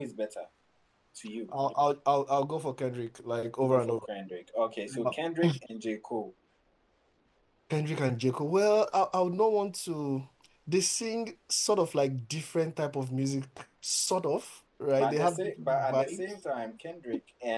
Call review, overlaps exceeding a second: present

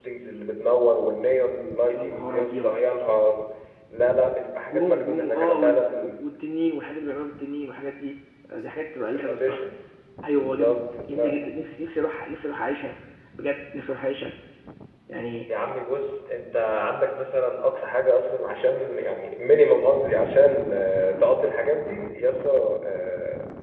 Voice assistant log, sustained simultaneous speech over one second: present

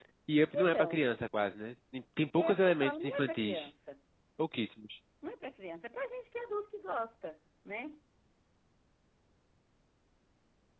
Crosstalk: present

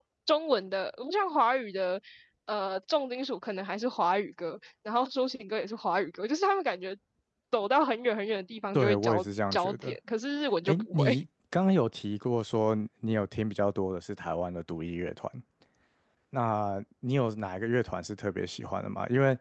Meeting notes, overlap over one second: present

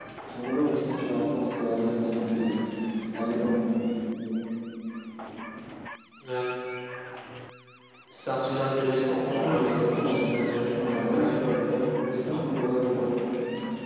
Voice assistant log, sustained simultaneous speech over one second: present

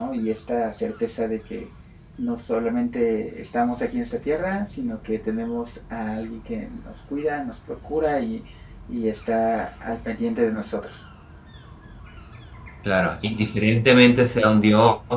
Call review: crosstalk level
none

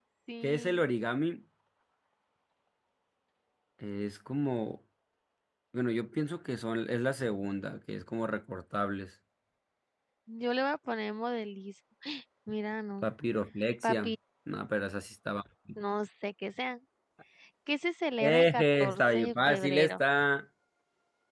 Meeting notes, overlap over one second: present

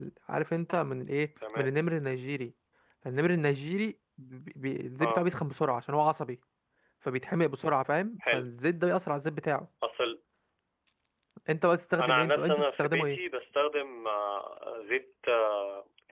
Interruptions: present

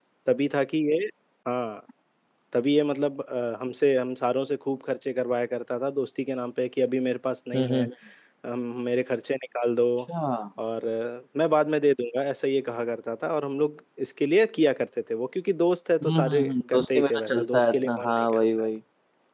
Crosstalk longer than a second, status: present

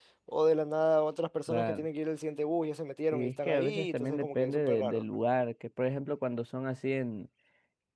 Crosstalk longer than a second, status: present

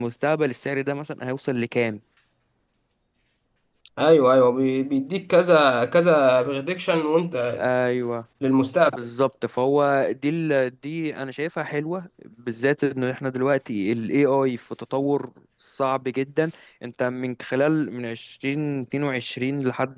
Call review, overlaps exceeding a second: none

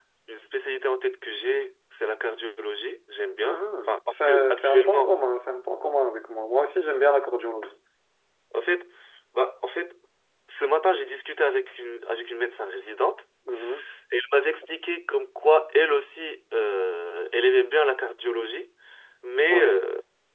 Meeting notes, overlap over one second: present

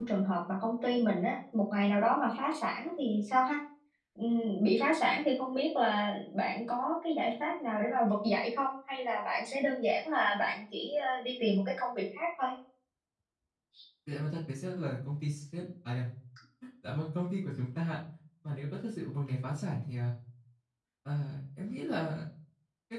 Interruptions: none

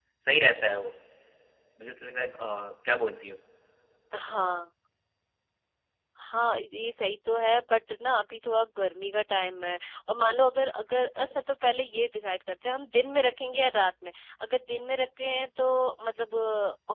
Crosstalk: none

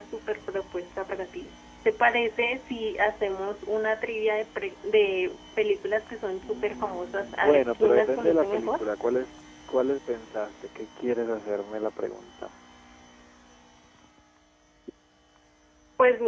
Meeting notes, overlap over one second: present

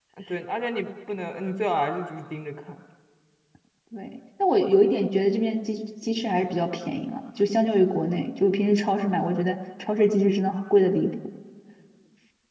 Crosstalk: none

